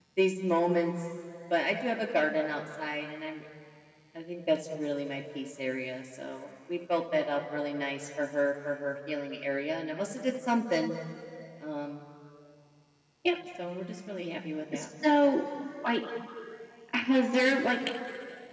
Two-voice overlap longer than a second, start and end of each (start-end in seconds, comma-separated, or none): none